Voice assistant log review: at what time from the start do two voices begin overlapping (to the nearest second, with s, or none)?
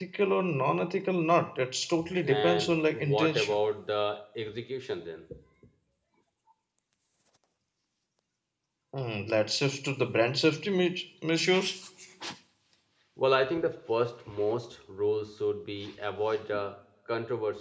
2 s